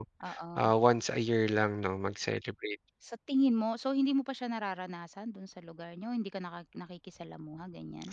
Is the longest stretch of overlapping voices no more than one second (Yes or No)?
Yes